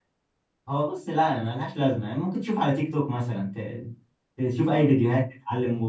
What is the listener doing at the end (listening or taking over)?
listening